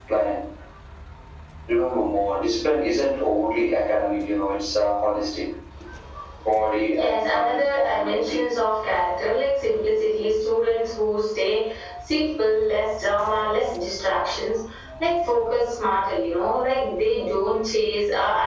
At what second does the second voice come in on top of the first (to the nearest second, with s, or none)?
7 s